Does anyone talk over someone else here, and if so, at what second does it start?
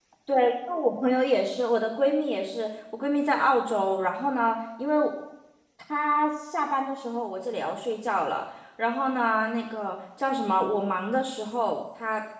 none

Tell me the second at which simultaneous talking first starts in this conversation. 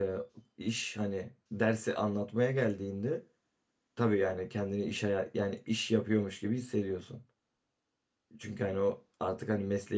none

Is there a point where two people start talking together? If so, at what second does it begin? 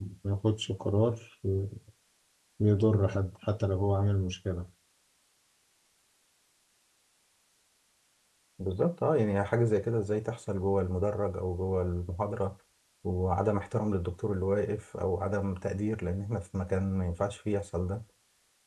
none

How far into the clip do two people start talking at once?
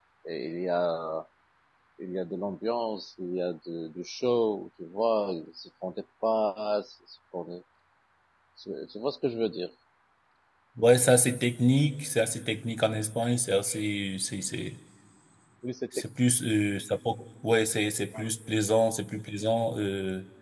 none

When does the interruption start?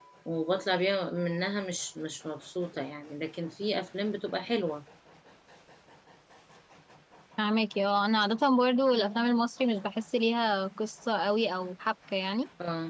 none

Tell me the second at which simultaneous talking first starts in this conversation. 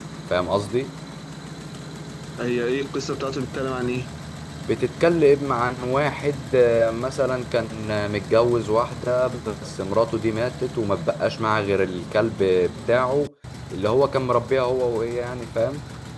none

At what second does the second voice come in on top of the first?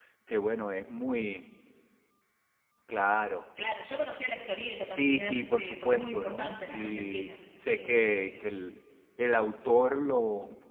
4.9 s

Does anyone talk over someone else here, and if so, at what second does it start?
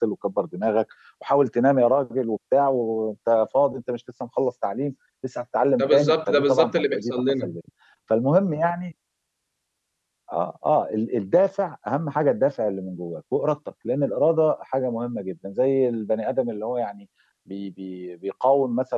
5.8 s

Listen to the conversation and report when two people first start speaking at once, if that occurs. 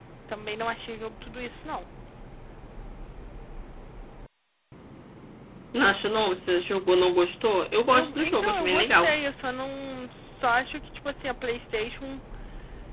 7.9 s

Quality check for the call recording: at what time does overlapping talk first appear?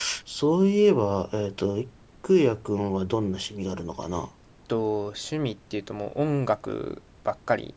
none

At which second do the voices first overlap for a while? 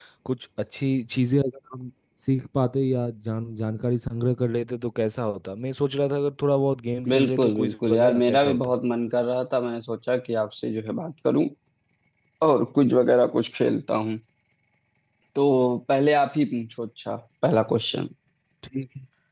7.0 s

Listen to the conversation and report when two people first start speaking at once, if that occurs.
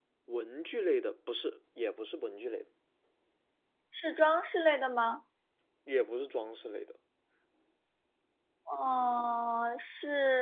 none

